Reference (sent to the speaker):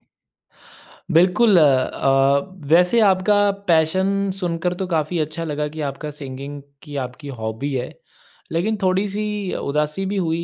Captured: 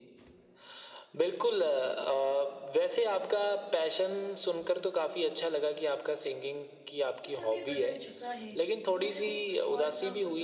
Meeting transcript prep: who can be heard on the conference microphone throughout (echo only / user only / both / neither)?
both